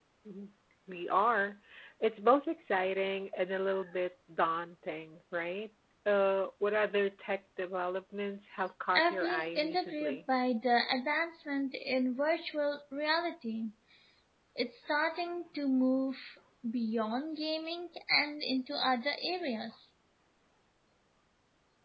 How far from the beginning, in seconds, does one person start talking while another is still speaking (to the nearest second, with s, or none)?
9 s